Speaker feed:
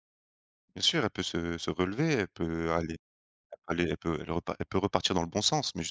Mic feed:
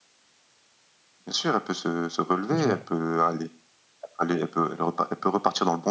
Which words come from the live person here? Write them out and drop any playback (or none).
Dis-moi.